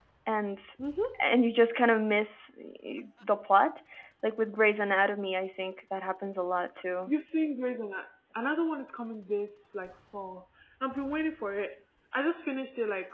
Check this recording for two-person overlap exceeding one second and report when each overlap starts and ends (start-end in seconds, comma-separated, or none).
none